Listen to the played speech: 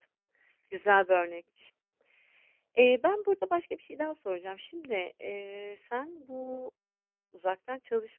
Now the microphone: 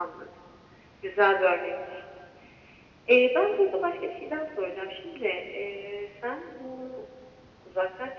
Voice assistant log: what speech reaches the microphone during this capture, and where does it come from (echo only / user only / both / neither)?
echo only